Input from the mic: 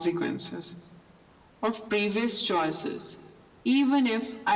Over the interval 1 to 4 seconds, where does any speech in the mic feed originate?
echo only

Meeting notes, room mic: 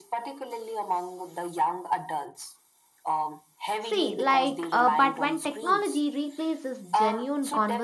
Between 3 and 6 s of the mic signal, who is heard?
both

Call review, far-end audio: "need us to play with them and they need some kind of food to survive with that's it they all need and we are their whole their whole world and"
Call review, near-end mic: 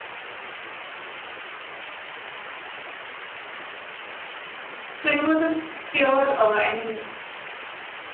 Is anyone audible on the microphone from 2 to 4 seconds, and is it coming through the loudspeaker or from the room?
neither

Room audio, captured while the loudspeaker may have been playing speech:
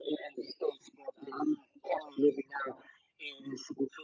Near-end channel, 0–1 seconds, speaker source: echo only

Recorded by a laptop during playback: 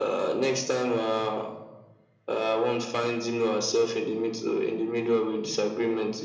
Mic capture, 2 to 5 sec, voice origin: echo only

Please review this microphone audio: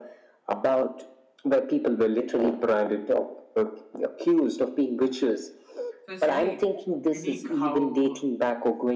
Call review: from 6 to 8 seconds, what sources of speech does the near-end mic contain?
both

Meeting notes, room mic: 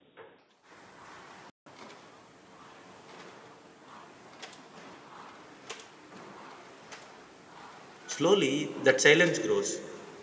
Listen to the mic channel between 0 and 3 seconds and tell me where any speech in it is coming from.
neither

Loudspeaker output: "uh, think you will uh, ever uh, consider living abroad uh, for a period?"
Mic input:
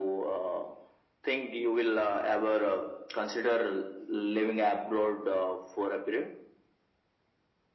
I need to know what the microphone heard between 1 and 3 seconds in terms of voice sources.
echo only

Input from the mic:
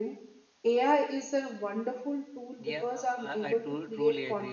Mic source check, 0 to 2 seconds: echo only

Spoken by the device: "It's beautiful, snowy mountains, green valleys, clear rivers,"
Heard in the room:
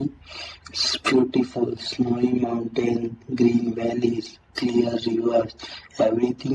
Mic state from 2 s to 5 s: echo only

